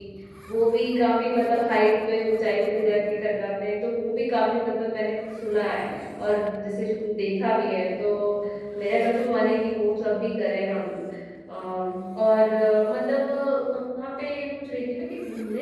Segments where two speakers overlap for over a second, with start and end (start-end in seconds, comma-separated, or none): none